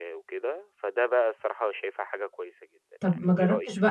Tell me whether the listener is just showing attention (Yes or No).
No